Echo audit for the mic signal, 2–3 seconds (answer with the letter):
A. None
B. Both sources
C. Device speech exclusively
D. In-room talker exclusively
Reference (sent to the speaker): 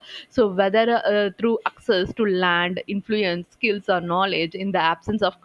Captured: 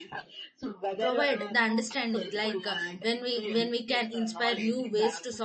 B